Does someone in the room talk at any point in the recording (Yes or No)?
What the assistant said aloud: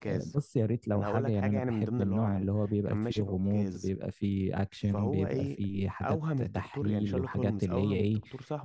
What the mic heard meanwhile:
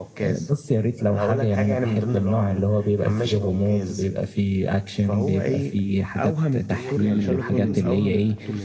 Yes